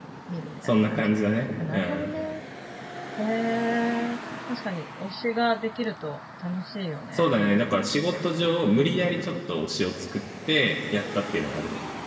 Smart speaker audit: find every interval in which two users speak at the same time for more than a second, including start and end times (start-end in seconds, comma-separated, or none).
none